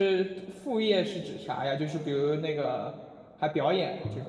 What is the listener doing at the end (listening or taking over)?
taking over